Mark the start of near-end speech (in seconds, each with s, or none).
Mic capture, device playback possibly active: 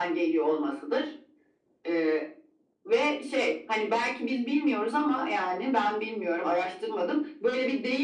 none